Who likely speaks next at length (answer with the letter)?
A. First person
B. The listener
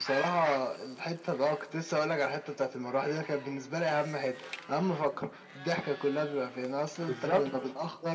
A